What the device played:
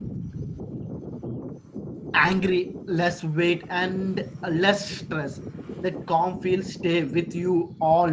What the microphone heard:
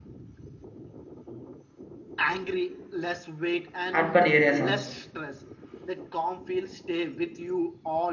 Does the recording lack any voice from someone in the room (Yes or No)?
No